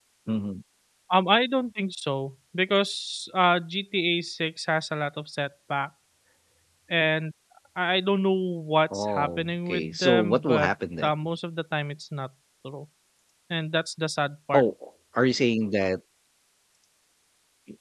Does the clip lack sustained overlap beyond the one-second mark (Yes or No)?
No